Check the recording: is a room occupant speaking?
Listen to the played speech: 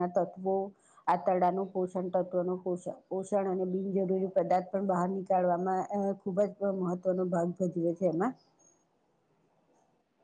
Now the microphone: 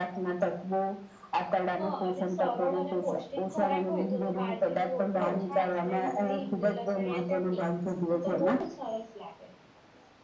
Yes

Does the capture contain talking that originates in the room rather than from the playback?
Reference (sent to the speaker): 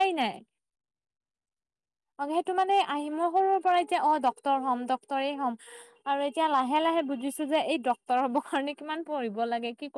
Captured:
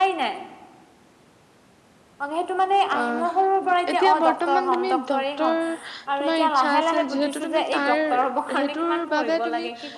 Yes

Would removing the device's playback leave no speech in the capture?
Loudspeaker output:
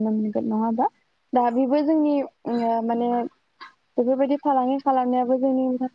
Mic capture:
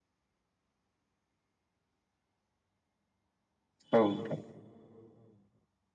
No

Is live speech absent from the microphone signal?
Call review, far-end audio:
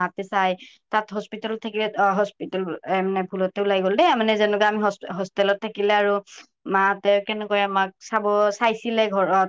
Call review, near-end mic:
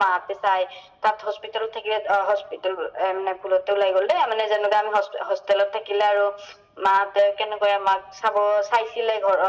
Yes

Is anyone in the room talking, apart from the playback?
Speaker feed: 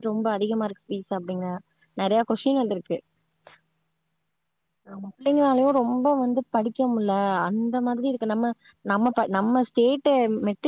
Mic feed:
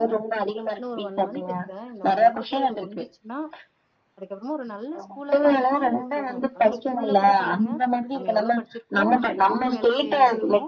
Yes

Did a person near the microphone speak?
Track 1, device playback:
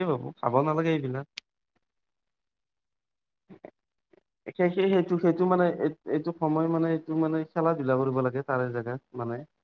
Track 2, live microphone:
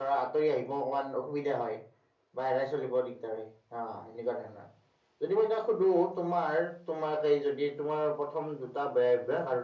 Yes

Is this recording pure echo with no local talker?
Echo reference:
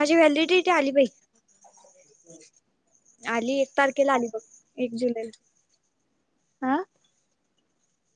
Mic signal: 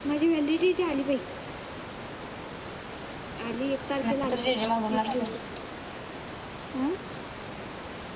No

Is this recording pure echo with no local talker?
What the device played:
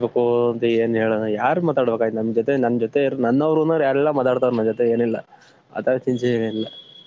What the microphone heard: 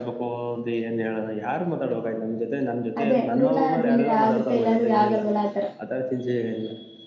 No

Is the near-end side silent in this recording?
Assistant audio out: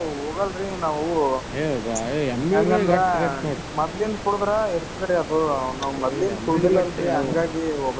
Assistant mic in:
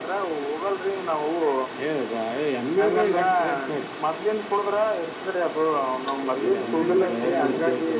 No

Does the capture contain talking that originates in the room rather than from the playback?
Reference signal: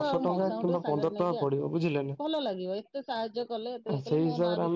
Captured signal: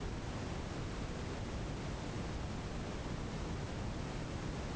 No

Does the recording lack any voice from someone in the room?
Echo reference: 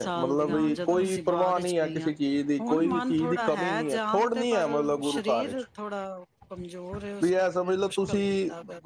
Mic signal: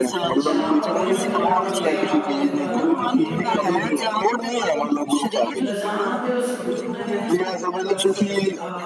No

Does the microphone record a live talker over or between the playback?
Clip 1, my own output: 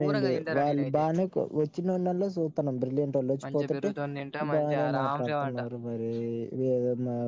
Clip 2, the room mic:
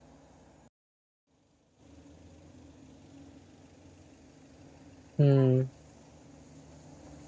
Yes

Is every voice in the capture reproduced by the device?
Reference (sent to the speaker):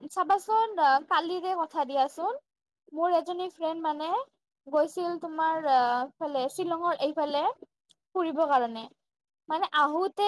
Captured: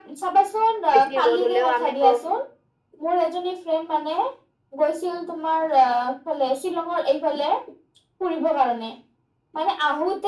No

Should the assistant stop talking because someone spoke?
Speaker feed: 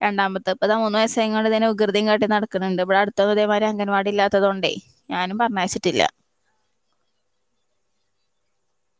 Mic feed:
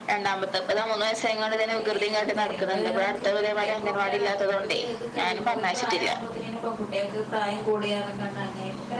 Yes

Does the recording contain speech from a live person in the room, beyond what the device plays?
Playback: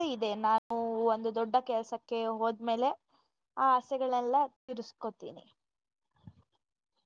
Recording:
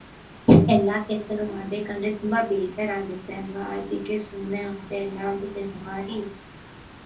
Yes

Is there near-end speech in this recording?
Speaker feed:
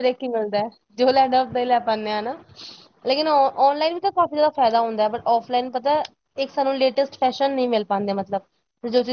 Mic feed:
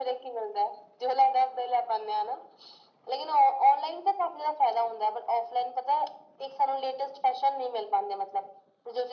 No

